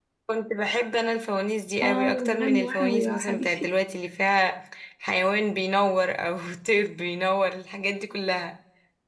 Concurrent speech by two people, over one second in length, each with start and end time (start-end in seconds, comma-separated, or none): 1.8-3.6